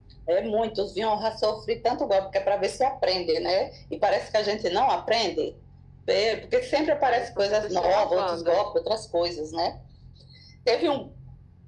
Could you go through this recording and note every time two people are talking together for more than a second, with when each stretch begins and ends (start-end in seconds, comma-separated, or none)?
7.0-8.6